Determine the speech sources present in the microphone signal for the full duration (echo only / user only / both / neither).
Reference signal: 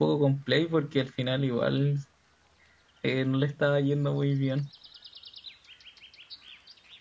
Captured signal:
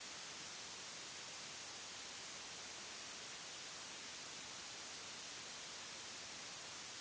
neither